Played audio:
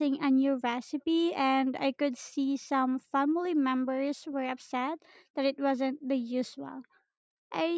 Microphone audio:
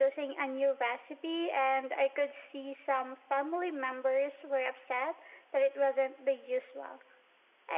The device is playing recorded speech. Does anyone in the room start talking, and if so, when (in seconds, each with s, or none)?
none